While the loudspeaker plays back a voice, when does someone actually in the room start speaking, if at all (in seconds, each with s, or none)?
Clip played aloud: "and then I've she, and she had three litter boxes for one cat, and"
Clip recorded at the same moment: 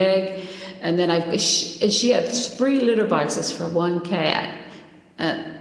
none